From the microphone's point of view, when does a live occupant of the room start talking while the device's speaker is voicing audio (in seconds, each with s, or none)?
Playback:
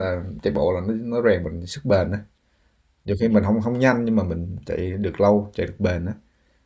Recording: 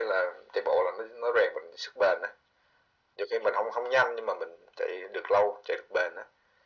none